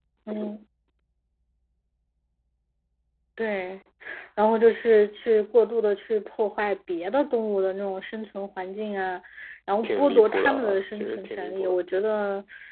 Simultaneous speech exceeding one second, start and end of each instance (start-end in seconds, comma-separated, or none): 9.8-11.8